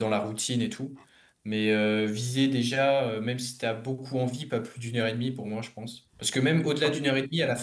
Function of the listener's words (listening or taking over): listening